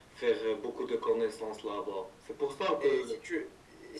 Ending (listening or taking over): taking over